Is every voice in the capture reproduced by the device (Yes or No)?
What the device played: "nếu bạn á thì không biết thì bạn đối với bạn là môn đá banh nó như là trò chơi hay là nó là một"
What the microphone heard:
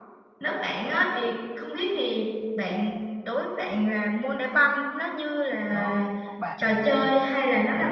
No